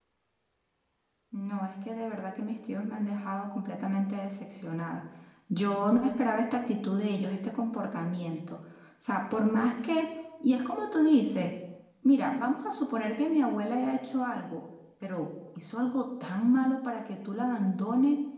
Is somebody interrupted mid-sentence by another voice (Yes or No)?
No